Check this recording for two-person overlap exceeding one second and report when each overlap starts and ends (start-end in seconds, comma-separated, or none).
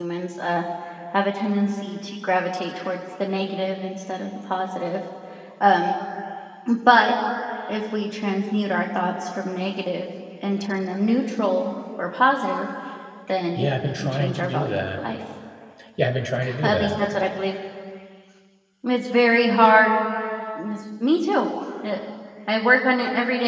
13.6-14.9